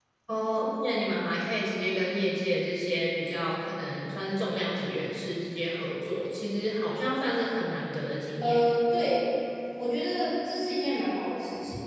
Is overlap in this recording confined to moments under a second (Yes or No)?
Yes